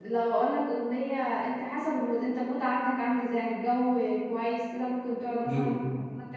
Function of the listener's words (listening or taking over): listening